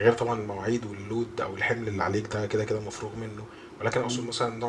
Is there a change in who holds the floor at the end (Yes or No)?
No